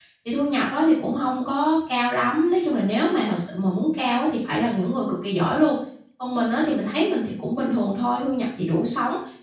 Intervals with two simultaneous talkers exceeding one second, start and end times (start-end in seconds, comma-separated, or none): none